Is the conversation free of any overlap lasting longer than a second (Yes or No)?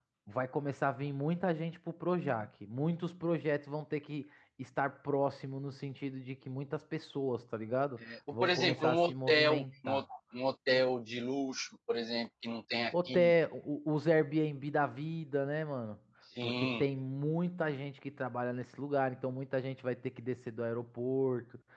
No